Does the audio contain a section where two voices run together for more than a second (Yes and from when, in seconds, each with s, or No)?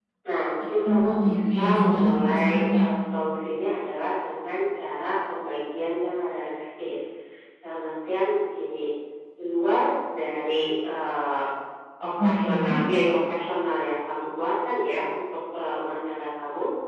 Yes, from 0.8 s